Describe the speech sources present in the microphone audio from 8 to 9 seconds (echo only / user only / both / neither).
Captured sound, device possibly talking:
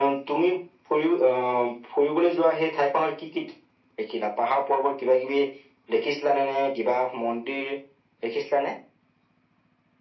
echo only